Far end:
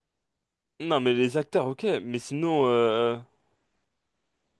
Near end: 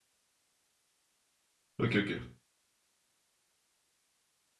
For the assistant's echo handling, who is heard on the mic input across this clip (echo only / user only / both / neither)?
user only